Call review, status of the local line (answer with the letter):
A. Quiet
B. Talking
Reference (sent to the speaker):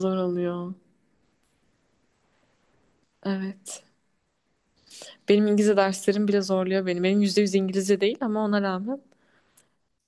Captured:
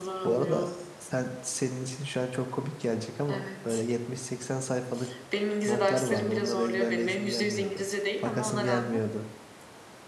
B